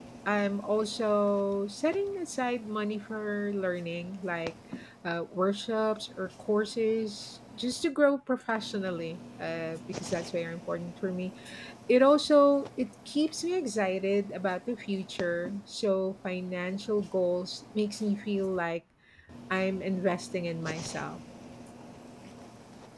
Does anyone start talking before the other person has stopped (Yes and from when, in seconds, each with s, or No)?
No